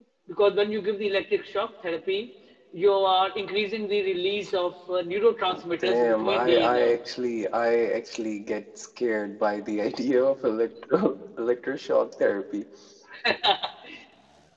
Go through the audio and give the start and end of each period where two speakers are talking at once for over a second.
5.8-7.0

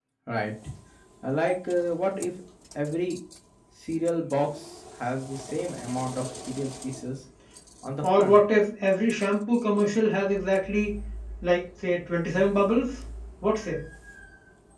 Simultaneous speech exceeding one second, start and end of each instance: none

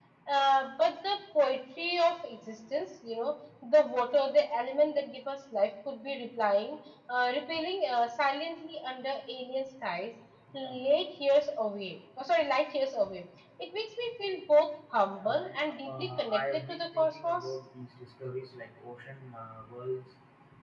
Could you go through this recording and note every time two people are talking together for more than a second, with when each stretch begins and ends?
15.1-17.5

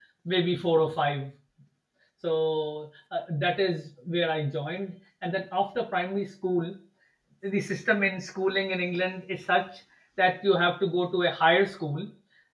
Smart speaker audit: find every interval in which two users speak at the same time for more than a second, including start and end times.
none

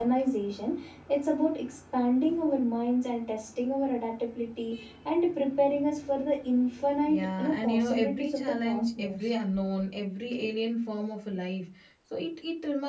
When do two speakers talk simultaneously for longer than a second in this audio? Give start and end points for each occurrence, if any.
7.1-9.3

